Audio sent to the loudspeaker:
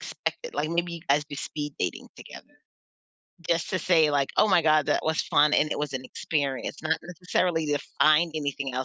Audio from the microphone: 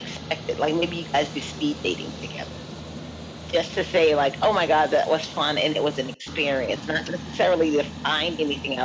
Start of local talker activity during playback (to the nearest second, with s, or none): none